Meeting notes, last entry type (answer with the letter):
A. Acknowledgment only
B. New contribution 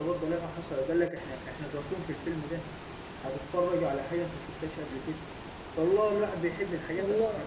A